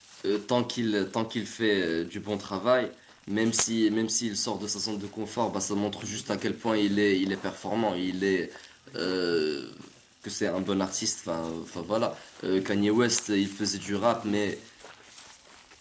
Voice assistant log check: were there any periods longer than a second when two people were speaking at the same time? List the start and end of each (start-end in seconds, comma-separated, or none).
none